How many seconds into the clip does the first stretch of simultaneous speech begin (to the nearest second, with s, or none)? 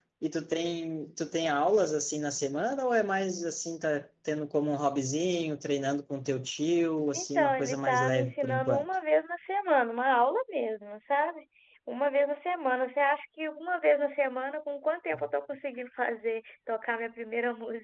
7 s